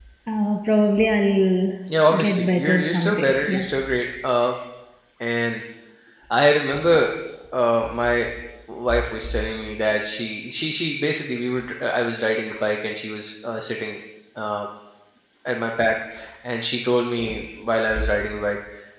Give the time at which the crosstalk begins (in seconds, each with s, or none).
2.3 s